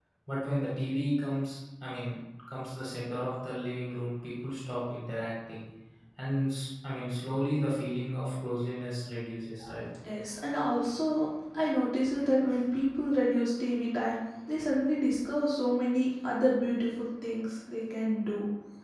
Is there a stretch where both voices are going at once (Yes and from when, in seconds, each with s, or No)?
No